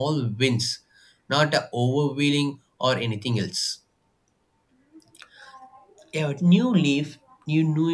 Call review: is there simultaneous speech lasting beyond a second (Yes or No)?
No